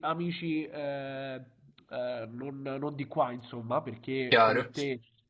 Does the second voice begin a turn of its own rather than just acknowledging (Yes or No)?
No